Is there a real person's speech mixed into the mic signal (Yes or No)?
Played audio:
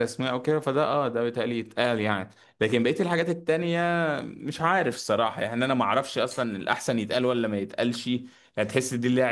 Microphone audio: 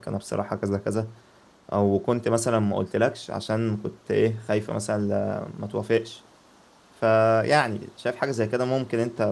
Yes